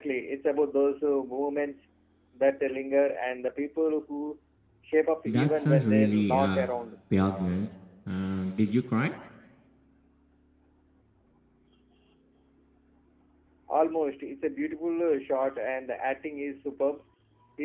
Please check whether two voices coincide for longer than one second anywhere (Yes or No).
Yes